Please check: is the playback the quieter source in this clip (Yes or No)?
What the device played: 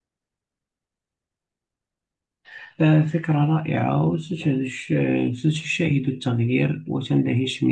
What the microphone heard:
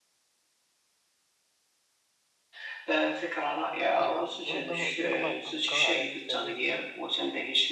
No